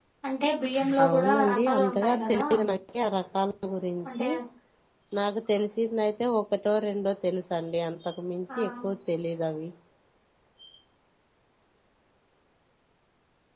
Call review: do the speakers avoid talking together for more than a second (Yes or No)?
No